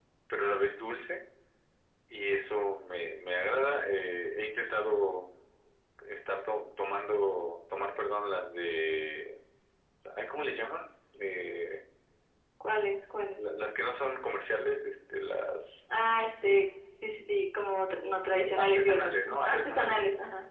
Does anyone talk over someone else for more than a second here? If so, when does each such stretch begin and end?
18.0-20.0

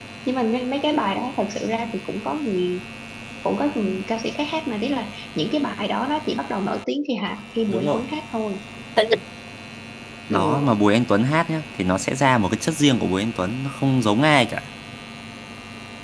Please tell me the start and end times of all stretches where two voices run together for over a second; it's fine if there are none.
none

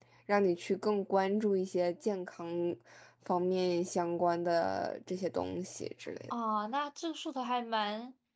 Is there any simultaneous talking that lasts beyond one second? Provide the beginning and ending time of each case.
none

